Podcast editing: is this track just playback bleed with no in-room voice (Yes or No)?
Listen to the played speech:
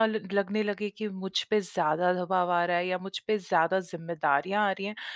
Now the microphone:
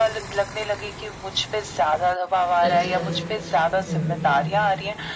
No